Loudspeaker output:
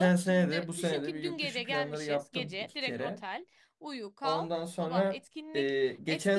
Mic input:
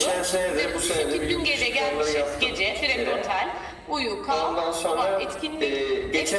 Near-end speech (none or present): none